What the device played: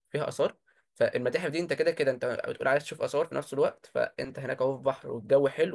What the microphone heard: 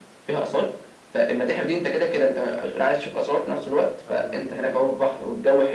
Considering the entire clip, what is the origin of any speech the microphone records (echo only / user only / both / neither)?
both